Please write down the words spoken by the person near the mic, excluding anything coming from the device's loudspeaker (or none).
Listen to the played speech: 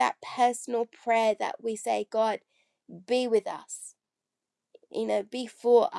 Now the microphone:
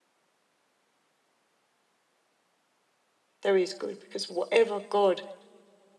there is good, because whatever God